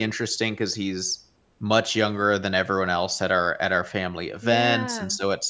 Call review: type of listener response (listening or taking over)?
listening